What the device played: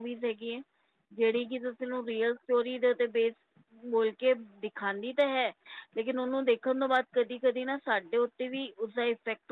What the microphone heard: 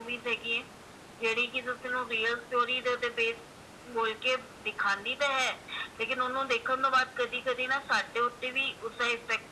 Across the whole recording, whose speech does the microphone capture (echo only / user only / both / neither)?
echo only